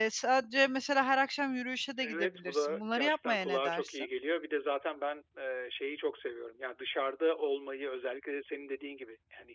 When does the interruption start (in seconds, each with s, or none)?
2.0 s